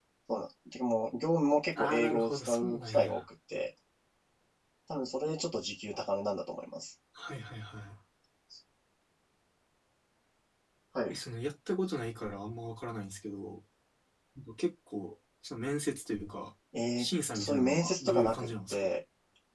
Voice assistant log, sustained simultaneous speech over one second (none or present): present